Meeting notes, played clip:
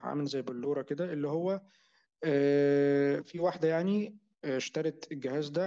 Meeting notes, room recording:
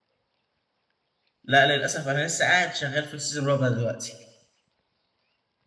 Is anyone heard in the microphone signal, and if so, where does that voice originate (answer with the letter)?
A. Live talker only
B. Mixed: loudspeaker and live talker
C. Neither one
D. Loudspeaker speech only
A